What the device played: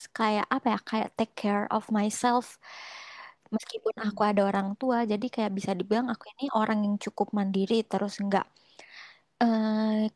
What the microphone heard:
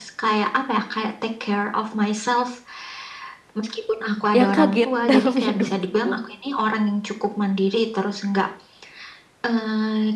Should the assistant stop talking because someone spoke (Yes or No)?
Yes